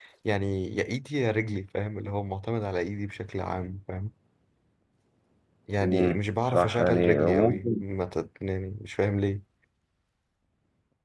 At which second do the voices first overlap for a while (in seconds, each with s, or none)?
5.8 s